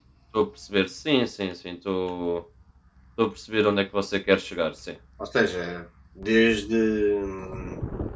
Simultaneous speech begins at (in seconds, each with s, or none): none